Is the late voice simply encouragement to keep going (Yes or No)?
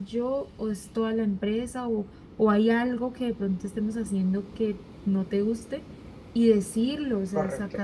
Yes